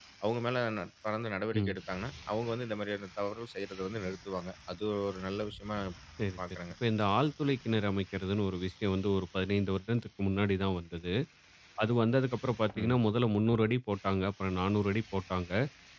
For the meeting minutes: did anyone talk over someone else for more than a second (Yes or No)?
No